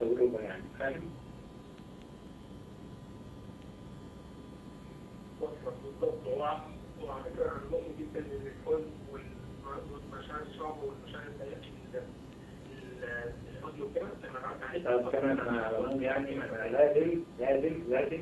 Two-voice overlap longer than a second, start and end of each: 14.8-16.8

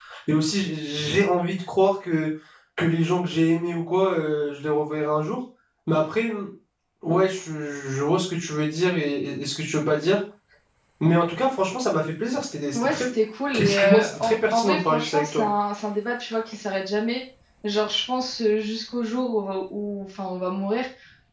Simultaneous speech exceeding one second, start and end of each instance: 13.6-15.5

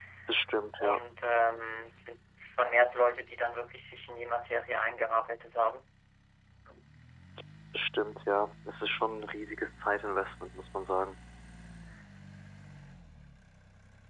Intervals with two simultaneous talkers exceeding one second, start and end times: none

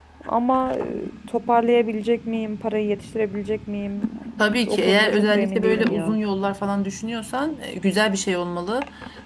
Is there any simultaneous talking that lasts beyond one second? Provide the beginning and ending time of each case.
4.6-6.2

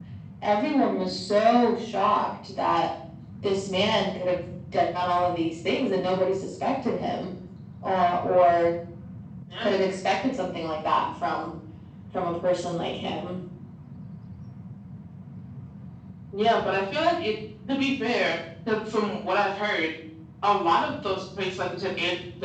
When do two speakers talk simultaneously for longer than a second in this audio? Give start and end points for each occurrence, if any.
none

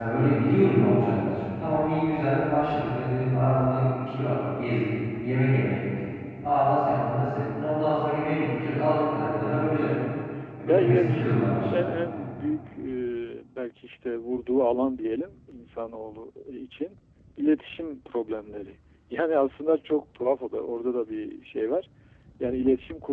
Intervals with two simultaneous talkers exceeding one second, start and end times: 10.7-12.3

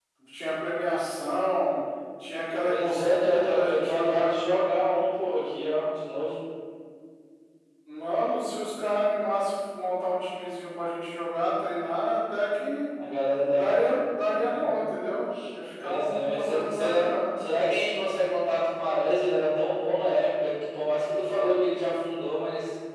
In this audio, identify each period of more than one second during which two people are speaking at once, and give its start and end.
2.6-4.5, 15.8-17.1

